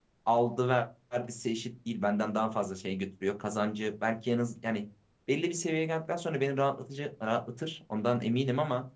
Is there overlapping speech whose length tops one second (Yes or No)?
No